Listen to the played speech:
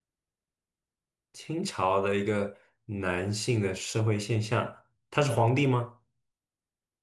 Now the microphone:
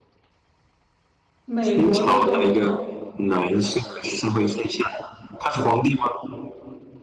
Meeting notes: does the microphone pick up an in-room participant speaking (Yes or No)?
Yes